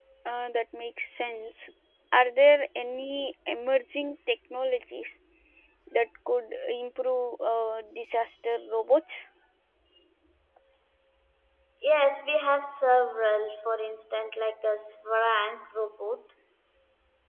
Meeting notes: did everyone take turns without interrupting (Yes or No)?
Yes